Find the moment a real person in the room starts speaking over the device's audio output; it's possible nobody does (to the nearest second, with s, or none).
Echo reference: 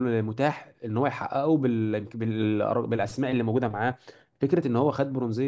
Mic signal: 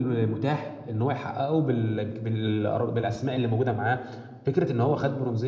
none